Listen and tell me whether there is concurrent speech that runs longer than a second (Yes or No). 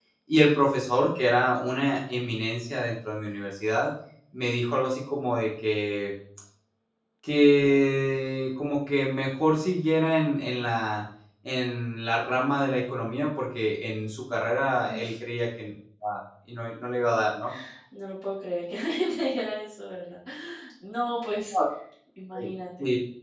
No